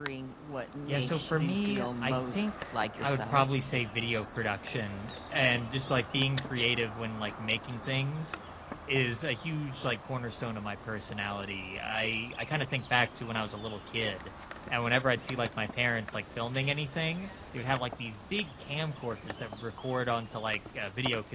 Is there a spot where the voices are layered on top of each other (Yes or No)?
Yes